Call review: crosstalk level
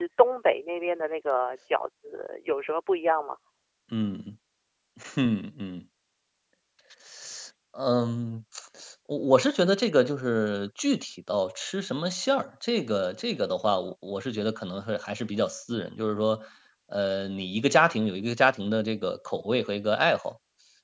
none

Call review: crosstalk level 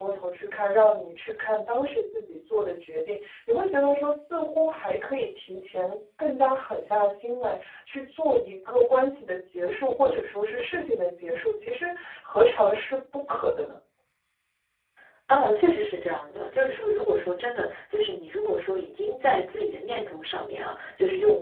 none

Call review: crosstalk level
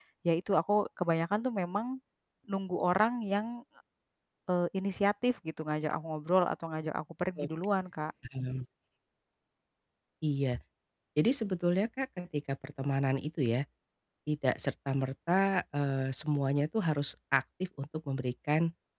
none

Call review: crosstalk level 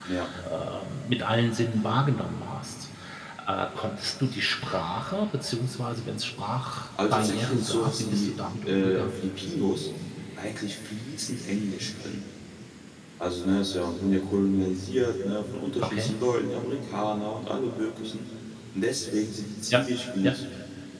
present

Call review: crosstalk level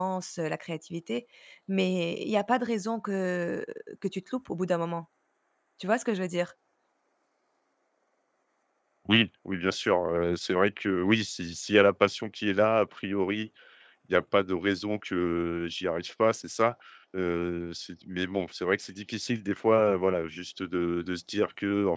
none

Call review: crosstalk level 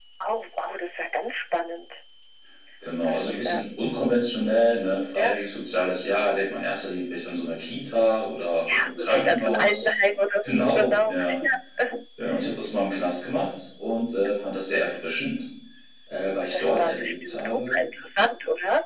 present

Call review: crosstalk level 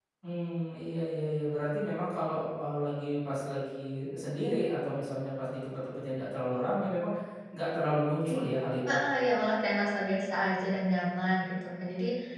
none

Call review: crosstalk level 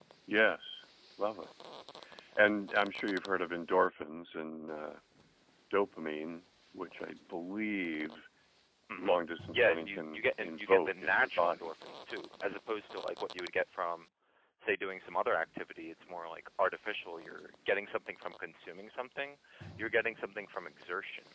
present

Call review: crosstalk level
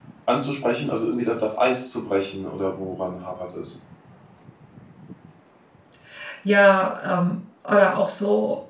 none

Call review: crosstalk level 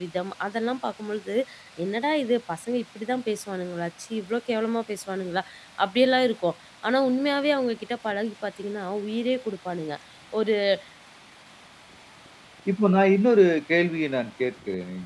none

